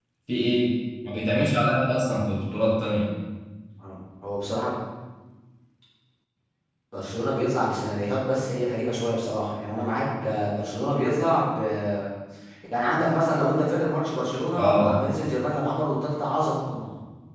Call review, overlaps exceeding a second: none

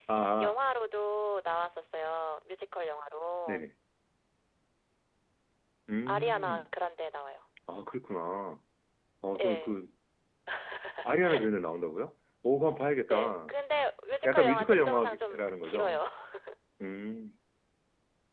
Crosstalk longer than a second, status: present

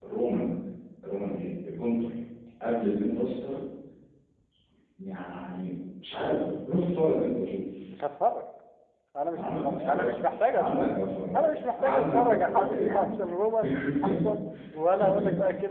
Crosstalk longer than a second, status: present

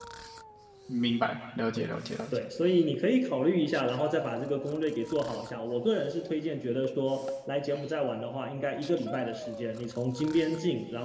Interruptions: none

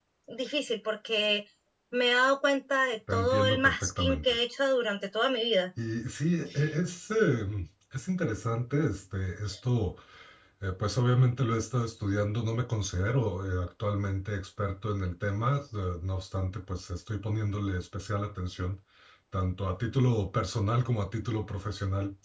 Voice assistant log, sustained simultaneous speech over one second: present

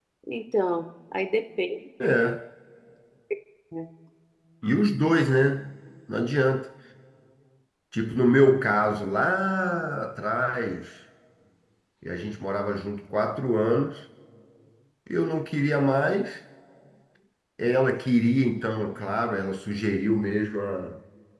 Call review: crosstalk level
none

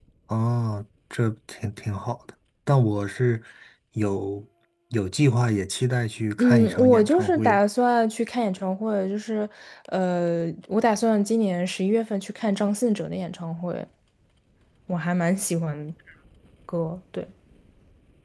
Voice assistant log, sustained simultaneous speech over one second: present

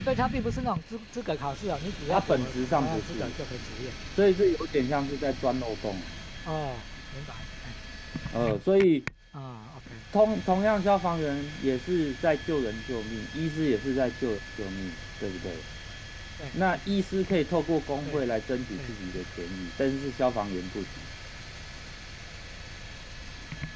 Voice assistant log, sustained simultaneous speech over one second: present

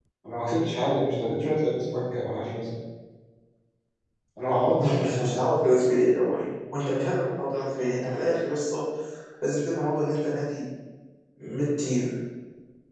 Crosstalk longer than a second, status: none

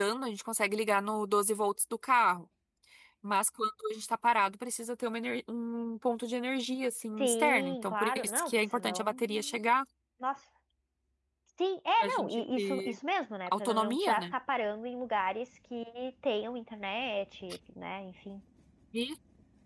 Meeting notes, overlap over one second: present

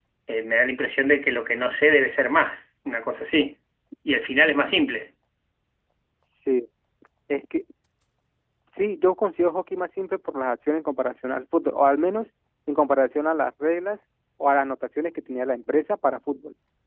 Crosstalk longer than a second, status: none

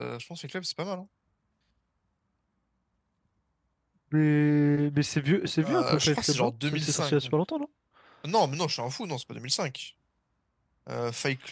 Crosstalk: present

